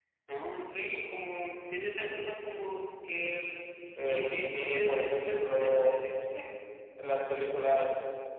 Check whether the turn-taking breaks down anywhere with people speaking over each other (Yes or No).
Yes